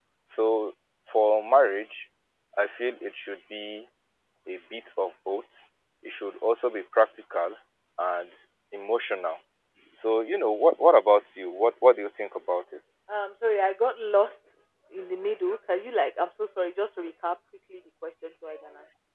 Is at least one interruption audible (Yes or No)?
No